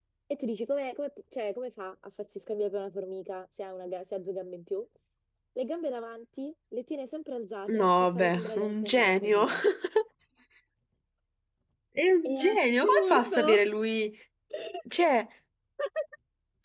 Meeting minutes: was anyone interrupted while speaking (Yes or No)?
Yes